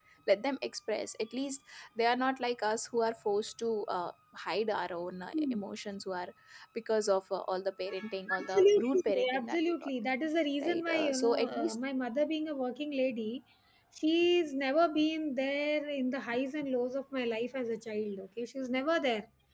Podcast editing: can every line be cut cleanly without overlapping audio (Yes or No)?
No